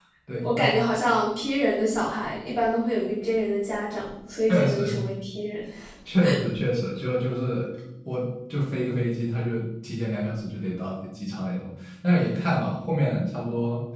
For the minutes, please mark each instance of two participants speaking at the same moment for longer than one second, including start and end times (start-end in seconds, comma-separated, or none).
none